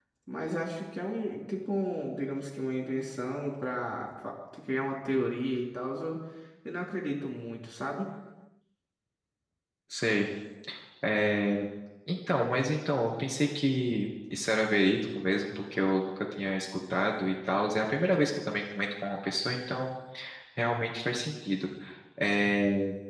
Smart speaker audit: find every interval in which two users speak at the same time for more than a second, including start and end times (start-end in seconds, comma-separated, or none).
none